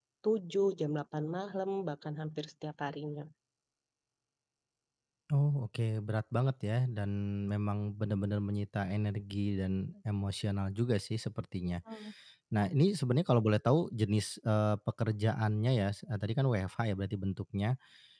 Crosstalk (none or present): none